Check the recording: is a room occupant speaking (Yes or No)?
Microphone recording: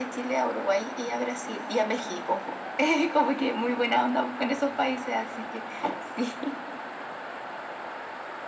No